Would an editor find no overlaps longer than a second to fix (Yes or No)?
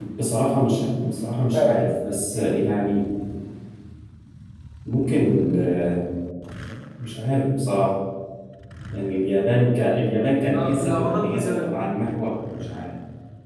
No